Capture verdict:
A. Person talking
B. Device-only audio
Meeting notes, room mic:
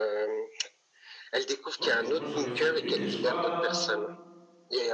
A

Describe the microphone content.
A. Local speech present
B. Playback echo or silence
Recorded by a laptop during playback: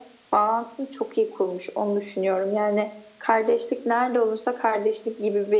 B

